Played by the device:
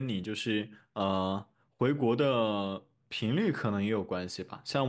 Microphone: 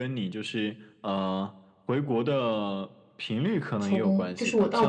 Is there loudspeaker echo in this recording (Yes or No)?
Yes